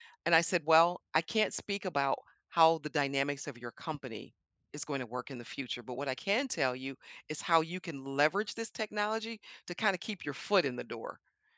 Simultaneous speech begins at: none

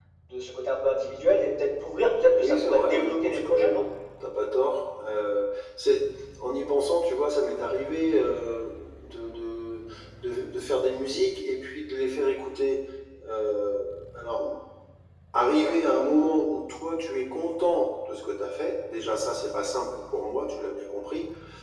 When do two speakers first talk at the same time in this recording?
2 s

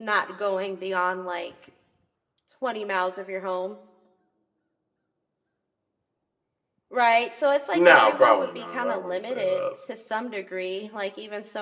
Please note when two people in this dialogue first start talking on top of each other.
8 s

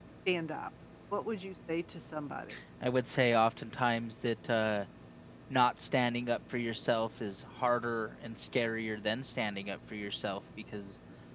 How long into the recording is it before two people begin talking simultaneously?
none

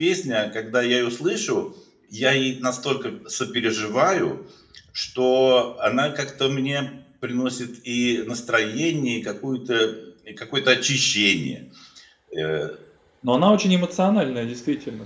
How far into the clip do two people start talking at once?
none

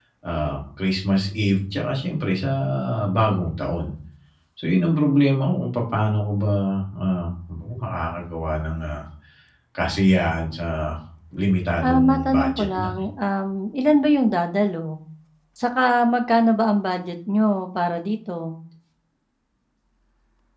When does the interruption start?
12 s

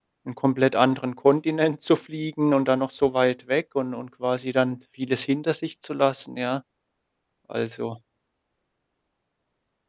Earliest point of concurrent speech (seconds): none

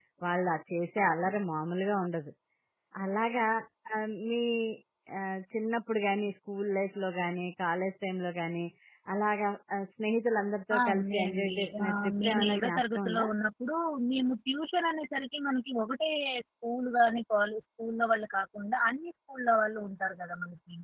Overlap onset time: 11 s

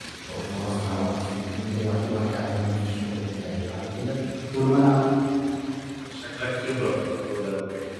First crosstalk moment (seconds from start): none

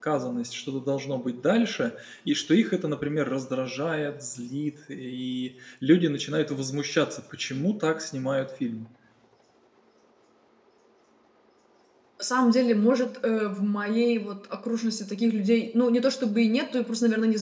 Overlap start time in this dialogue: none

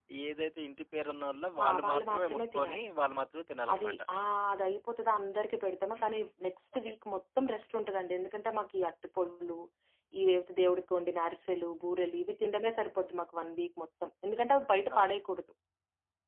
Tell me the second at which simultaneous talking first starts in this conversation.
2 s

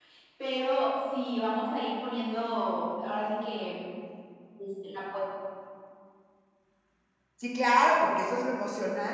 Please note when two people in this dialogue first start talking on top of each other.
none

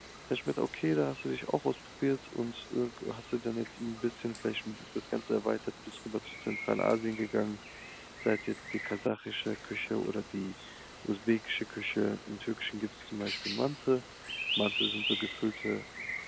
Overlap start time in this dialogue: none

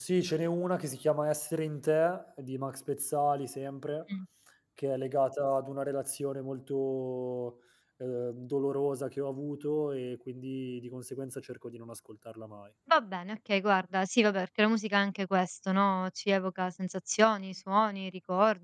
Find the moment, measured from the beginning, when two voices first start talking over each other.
none

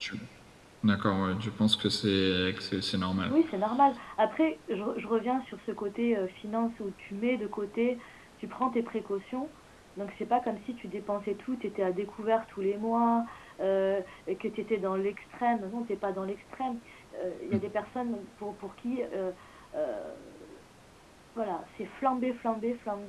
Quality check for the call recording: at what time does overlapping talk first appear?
none

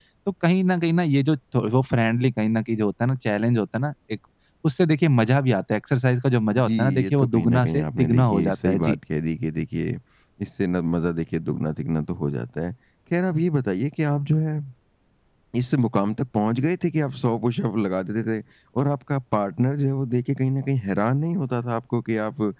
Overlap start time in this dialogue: 7 s

